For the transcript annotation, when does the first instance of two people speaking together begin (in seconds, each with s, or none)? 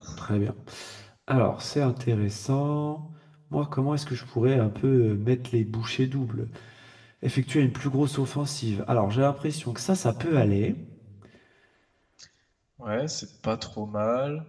none